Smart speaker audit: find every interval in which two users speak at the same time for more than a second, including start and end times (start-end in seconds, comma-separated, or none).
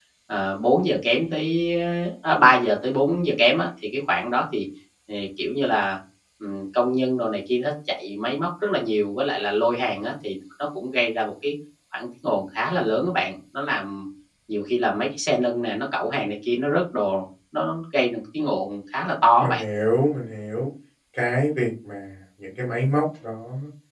none